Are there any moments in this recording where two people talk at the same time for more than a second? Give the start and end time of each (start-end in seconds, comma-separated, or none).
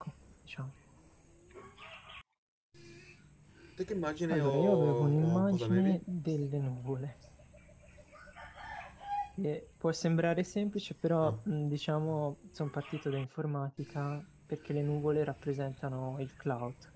4.3-6.0